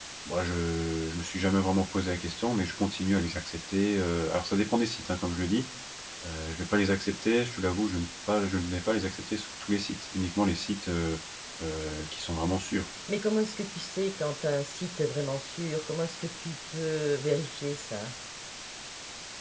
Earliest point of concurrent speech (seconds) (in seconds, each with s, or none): none